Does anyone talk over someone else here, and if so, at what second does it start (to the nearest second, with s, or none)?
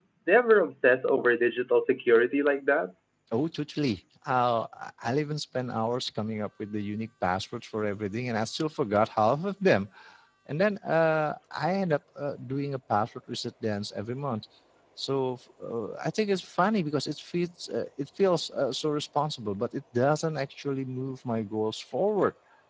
none